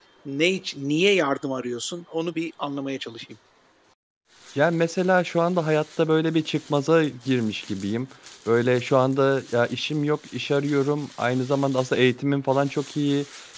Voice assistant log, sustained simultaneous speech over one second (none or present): none